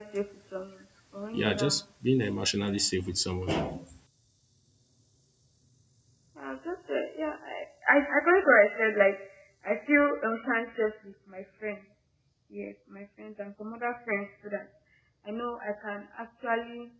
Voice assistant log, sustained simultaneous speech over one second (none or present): none